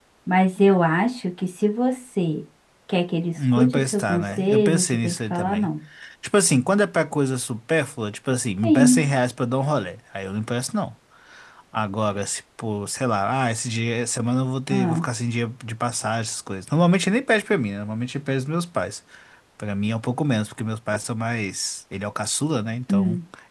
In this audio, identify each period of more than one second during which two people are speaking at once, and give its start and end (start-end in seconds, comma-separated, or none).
3.4-5.7